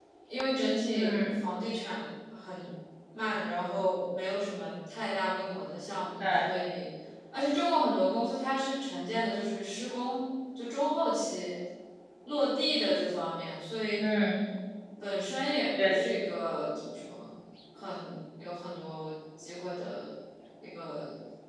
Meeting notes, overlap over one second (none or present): none